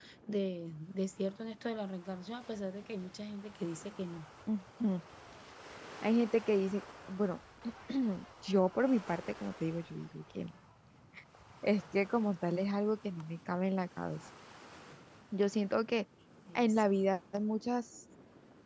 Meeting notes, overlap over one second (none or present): none